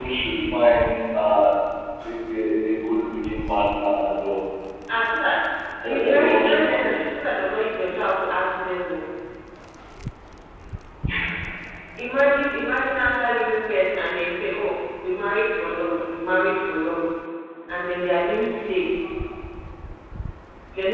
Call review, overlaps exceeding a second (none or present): present